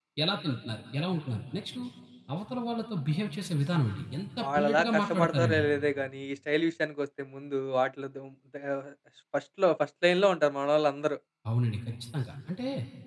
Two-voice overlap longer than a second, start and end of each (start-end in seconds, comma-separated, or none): 4.4-5.7